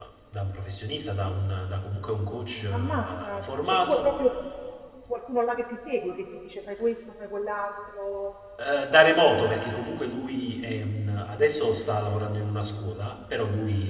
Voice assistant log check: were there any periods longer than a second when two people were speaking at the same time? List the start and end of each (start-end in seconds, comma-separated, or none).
2.7-4.2